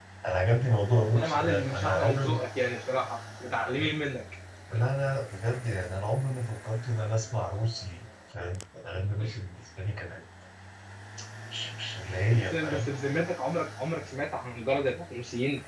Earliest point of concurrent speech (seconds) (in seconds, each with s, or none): 0.9 s